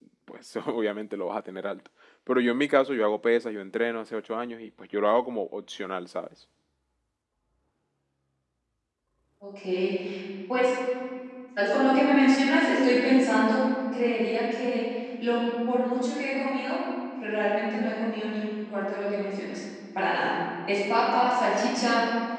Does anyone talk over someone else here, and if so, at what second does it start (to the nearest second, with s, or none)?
none